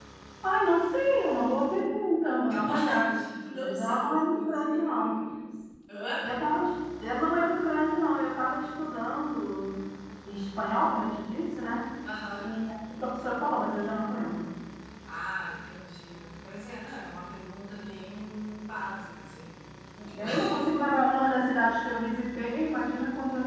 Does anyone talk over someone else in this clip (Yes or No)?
Yes